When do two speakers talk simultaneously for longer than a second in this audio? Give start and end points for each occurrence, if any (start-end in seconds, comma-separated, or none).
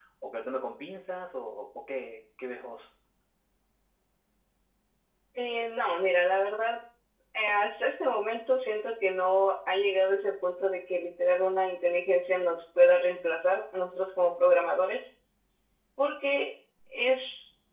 none